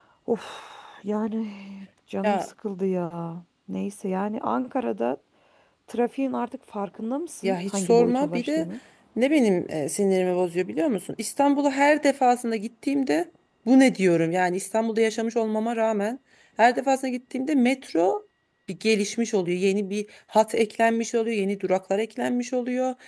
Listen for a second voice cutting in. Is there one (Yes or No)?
Yes